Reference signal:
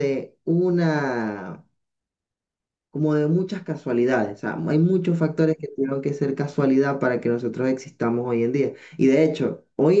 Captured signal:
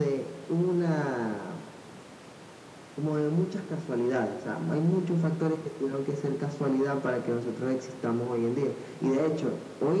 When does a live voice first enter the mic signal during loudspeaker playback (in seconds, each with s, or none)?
none